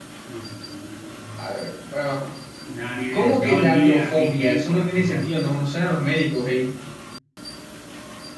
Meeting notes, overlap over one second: present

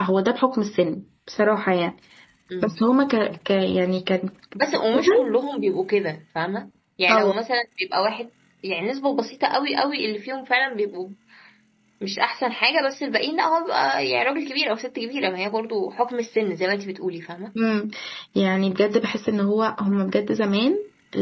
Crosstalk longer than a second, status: none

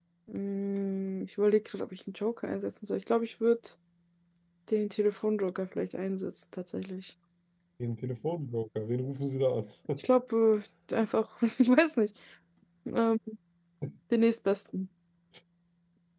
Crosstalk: none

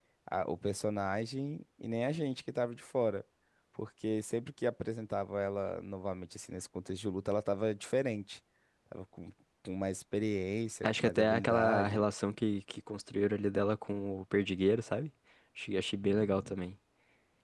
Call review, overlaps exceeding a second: present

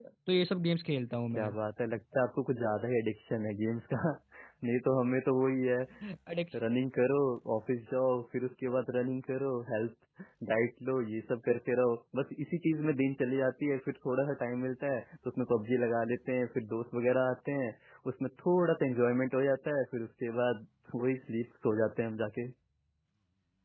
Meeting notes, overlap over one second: none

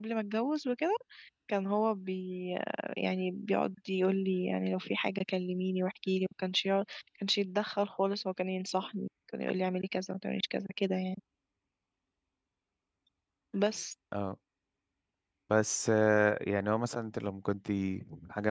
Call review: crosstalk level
none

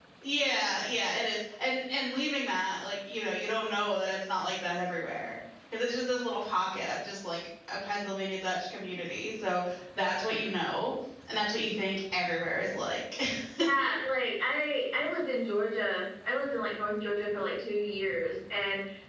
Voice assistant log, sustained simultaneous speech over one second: none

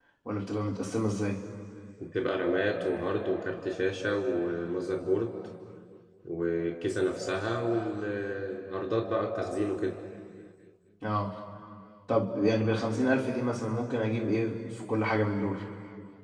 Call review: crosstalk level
none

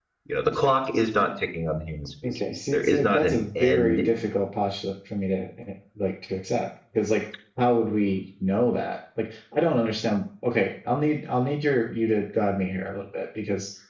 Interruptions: present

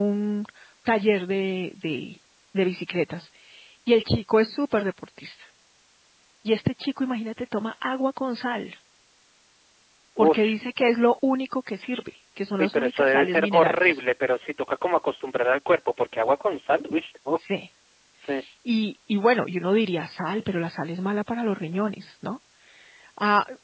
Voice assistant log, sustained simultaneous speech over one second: present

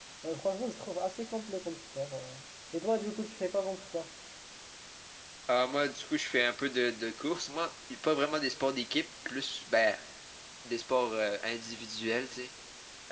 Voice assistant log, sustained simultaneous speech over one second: none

